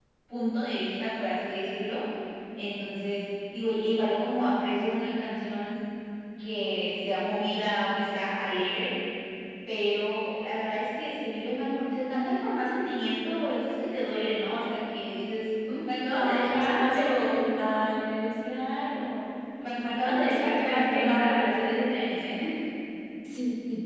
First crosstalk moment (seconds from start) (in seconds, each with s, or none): 16.1 s